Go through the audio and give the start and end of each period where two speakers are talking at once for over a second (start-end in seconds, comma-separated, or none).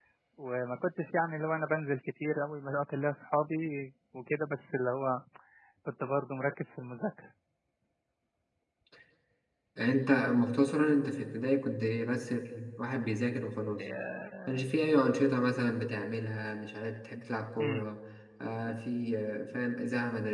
none